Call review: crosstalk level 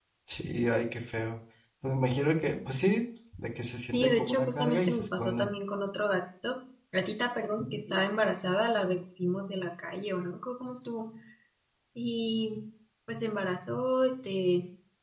present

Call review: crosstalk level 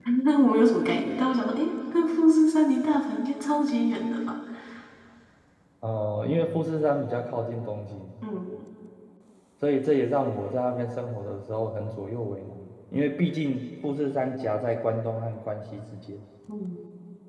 none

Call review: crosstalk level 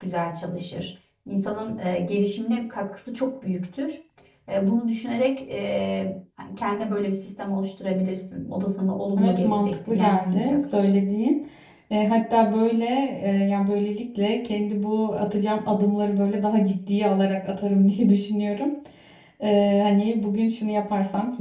present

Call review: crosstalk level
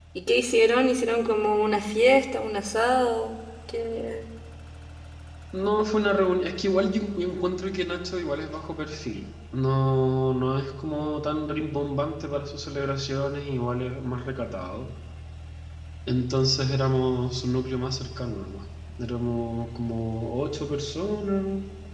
none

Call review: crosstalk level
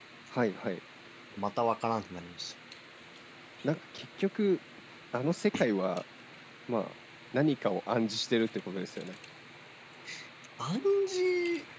none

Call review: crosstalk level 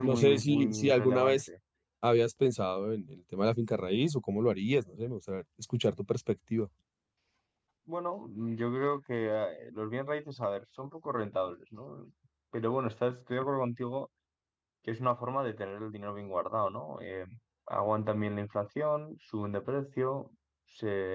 present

